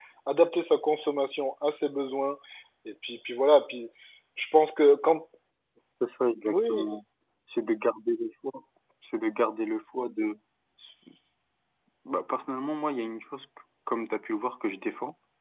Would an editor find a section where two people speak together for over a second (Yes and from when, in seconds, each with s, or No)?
No